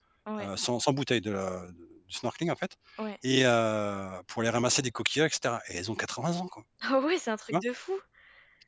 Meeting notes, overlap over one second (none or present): none